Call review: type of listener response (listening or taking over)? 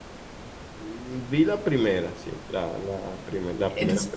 taking over